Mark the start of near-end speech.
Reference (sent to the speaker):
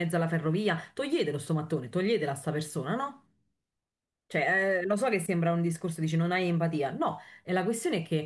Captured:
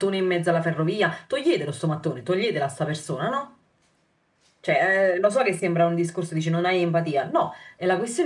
none

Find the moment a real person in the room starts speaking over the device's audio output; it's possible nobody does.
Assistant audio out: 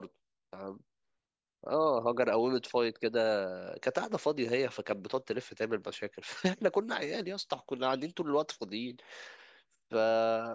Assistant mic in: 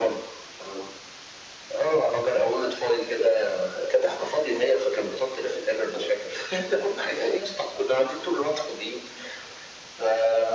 none

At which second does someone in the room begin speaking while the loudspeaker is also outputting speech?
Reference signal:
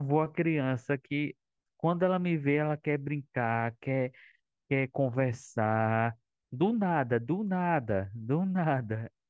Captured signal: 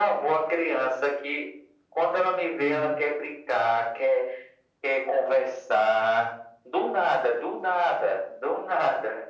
2.6 s

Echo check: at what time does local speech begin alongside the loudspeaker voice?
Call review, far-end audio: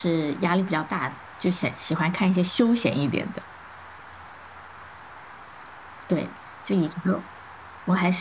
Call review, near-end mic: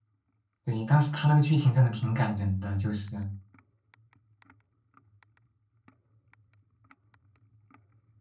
0.6 s

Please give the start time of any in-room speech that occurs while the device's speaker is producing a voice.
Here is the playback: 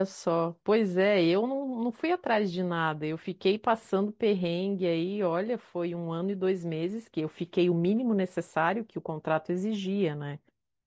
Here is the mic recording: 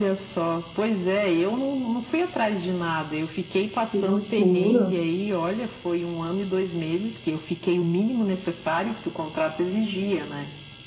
3.9 s

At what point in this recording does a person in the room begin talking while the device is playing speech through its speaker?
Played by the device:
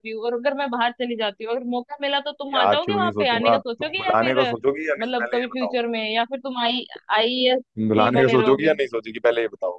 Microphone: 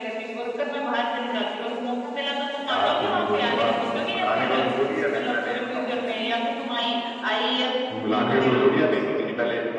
none

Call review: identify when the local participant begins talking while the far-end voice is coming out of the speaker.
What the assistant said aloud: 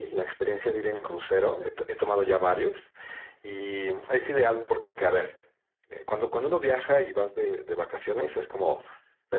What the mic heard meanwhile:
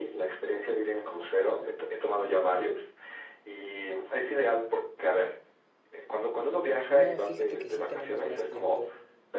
6.9 s

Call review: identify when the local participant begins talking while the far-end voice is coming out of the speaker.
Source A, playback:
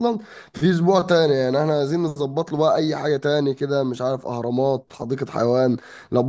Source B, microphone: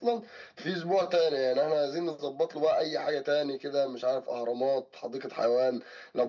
none

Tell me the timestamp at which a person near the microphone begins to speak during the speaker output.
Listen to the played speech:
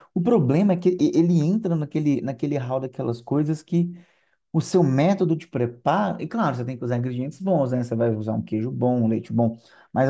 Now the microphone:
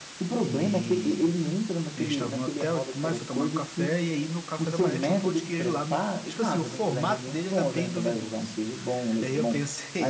0.4 s

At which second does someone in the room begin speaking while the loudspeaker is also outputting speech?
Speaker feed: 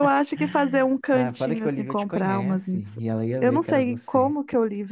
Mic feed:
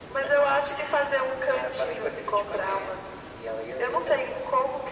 none

